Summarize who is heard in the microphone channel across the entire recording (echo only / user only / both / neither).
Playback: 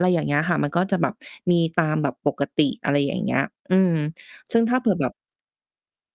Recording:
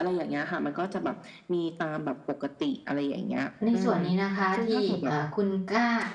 both